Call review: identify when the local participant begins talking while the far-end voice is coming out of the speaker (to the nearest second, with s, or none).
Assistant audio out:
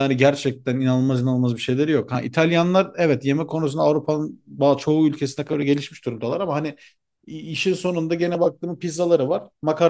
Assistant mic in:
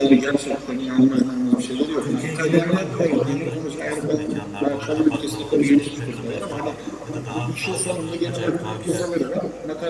2 s